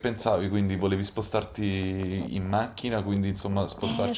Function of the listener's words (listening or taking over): taking over